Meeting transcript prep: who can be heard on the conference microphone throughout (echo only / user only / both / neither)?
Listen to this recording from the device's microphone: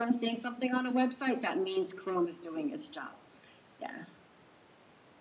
echo only